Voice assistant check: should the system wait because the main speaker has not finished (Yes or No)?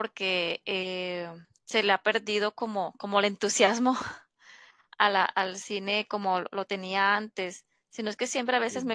Yes